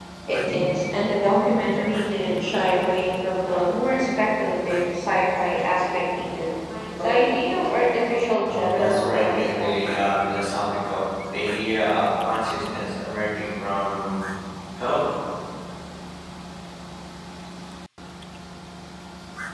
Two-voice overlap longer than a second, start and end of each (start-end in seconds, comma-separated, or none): 8.4-10.2